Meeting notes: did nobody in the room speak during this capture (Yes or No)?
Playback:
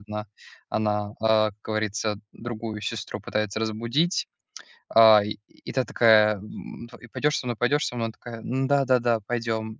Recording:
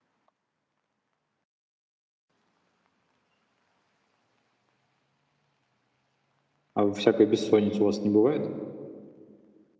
No